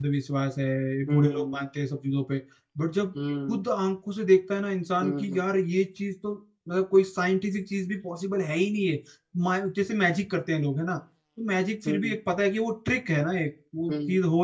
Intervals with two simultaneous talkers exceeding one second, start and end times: none

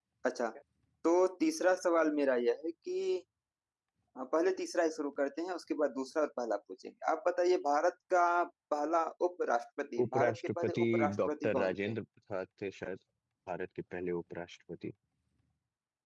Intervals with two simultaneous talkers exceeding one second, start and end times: 10.0-11.9

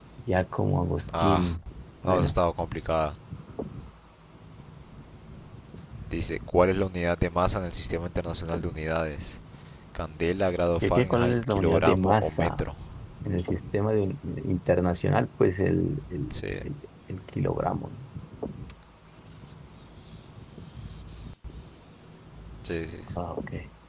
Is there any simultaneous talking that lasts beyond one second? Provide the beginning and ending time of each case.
10.8-12.6

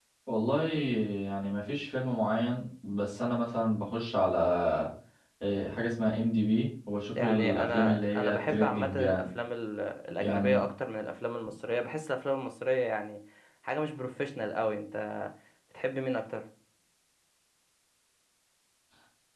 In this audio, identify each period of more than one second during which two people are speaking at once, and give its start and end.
7.2-9.3

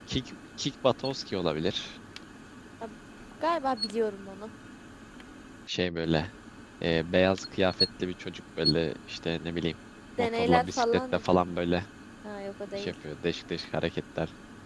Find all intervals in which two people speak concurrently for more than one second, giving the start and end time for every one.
10.2-11.5

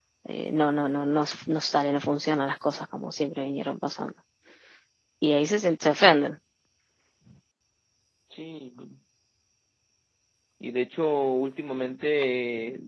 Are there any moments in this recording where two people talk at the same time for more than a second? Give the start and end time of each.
none

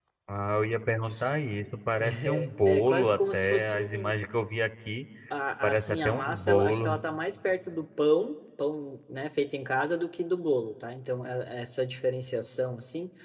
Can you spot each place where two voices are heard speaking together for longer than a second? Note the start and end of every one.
2.0-4.1, 5.6-7.0

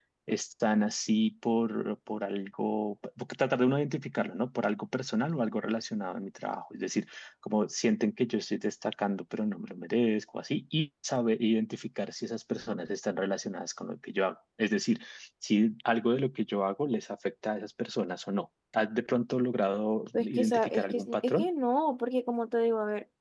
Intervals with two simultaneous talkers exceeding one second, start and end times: 20.1-21.5

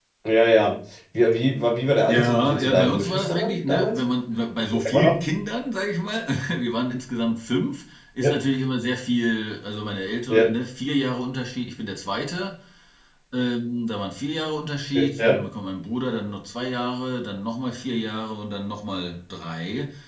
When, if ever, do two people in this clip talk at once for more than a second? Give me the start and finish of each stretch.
2.1-4.0

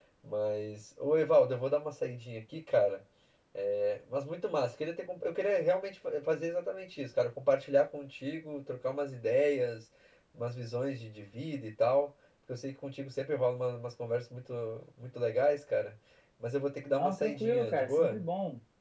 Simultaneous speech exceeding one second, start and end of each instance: 16.9-18.2

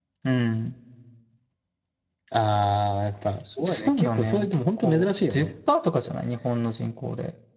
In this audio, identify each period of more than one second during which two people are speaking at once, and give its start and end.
3.7-5.5

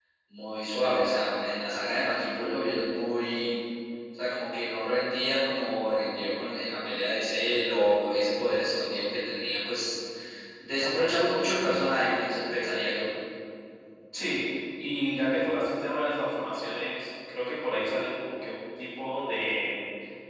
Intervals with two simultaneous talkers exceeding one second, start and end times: none

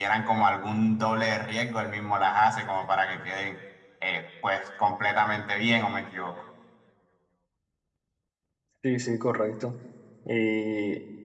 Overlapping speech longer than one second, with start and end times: none

